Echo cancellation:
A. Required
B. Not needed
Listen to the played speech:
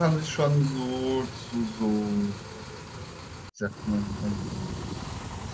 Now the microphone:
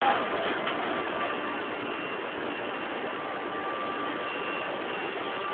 B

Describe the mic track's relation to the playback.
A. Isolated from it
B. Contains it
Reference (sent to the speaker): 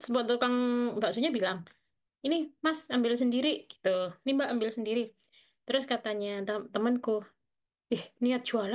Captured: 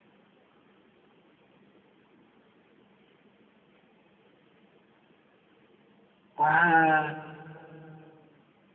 A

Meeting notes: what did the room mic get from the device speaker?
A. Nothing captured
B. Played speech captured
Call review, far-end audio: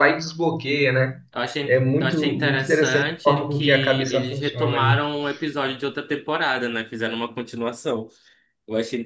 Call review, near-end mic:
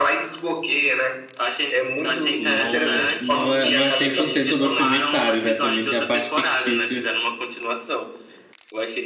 B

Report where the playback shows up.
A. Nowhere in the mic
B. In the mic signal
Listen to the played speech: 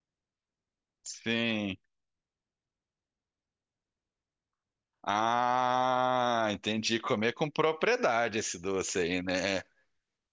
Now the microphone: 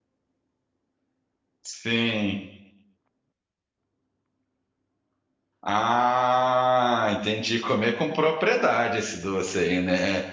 B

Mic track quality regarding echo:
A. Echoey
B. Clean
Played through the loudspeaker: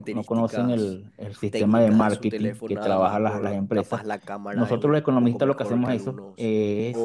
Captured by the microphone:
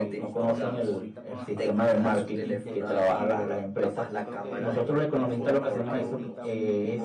A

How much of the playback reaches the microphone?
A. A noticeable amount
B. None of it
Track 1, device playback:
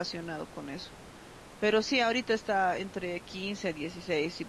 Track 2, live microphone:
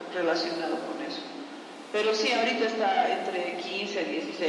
A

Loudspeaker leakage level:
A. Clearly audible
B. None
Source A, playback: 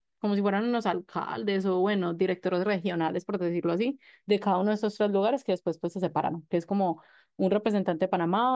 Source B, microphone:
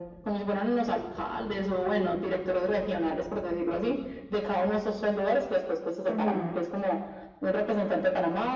A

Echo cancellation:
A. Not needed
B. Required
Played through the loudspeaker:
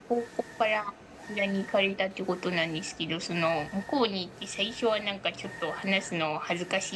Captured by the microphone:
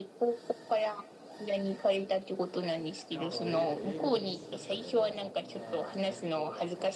B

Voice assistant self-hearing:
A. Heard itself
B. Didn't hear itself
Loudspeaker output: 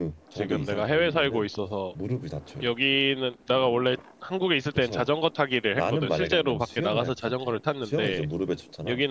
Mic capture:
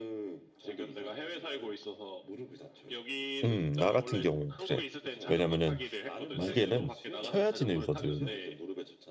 A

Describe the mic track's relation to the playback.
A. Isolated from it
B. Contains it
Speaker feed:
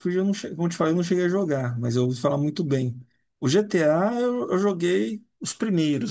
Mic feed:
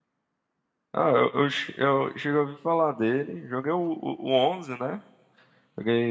A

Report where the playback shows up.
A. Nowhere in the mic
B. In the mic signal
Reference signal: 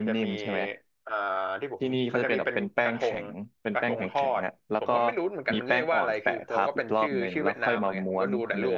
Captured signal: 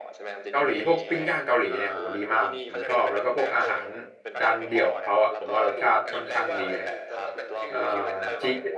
B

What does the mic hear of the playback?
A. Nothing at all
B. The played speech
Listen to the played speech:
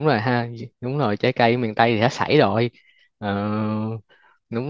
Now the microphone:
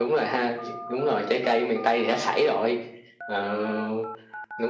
B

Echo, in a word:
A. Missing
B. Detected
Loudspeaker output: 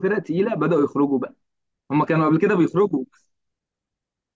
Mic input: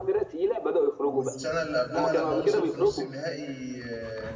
B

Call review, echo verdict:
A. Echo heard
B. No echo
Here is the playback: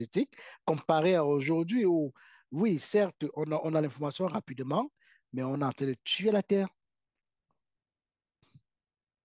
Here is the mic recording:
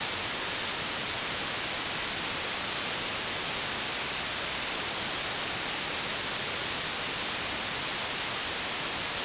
B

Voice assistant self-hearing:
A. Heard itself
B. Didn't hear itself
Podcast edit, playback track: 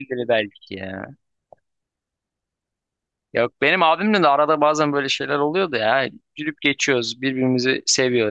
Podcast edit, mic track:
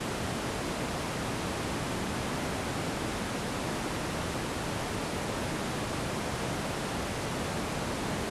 B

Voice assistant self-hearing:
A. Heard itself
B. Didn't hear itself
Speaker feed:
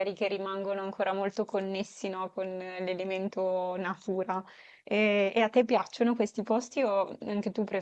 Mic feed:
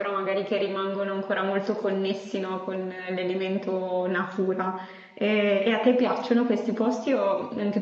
A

